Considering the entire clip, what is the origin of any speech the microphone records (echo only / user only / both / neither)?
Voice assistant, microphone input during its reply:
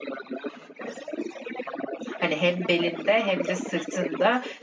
both